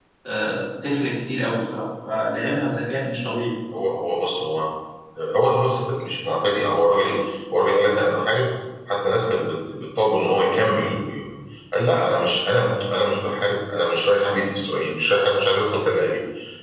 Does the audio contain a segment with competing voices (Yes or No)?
No